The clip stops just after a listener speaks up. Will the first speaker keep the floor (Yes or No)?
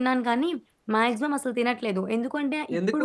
Yes